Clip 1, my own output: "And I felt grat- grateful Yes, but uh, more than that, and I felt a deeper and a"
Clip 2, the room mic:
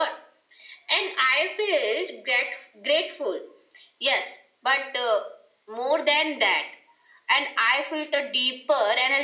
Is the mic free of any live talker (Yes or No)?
Yes